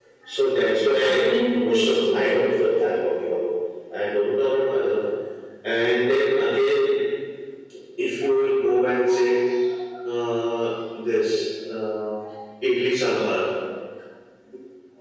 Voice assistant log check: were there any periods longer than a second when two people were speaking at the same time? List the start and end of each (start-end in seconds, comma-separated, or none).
0.8-2.5